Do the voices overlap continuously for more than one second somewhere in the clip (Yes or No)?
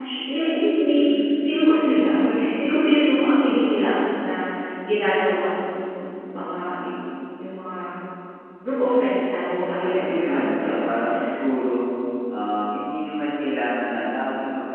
Yes